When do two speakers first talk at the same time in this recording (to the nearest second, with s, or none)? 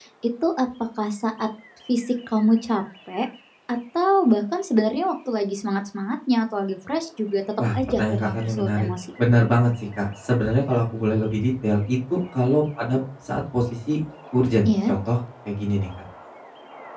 8 s